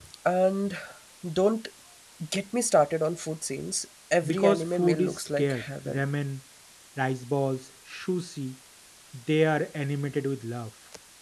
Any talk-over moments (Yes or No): Yes